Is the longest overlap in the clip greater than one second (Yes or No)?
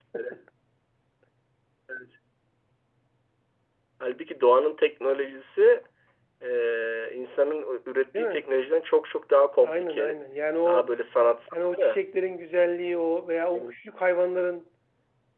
No